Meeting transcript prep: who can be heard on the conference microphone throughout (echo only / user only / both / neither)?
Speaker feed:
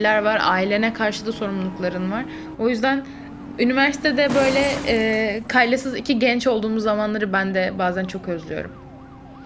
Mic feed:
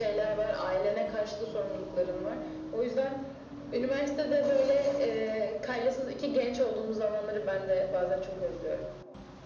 echo only